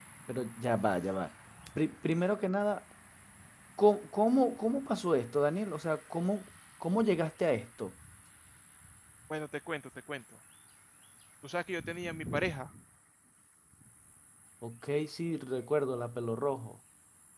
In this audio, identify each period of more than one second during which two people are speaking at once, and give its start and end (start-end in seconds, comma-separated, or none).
none